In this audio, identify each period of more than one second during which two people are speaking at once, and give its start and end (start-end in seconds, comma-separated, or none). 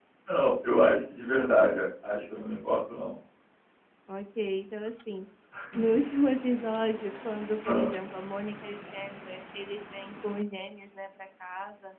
none